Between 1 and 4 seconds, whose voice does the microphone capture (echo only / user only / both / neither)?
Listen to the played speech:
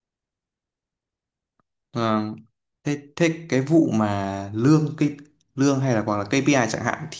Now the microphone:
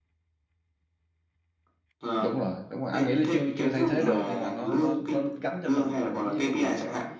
both